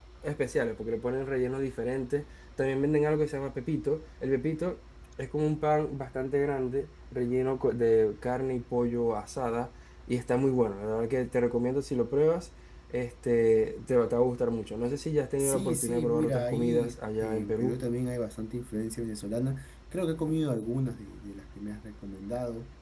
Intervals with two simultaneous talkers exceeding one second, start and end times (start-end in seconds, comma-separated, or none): 15.4-17.8